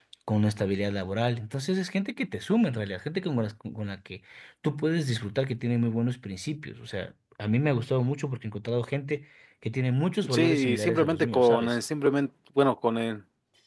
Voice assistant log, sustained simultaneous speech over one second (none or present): present